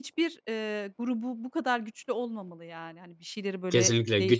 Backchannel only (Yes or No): No